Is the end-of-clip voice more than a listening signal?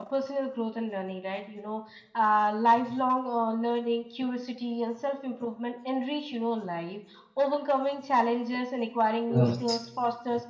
No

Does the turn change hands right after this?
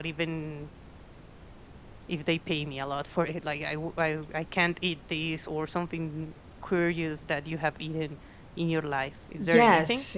Yes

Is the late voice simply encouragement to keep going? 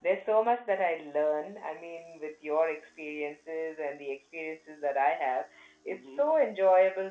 Yes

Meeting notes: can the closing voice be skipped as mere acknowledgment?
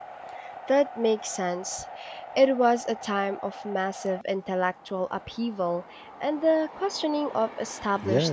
No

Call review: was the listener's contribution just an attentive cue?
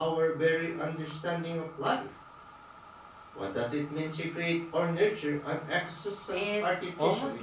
No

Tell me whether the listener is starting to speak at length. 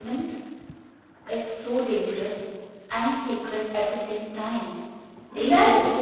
No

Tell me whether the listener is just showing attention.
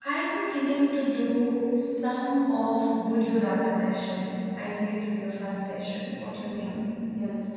No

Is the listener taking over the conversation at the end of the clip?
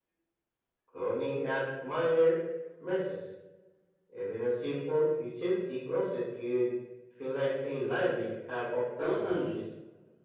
Yes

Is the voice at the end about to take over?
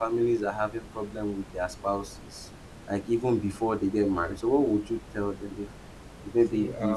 No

